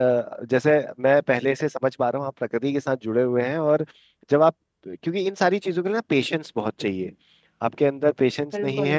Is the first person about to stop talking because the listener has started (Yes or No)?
No